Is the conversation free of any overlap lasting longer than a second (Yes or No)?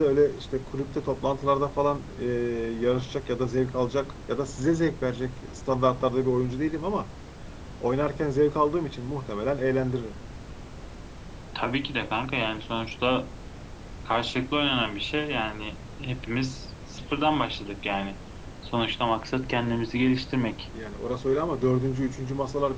Yes